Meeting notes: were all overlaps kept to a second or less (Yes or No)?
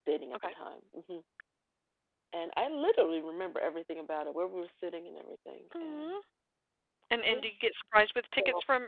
Yes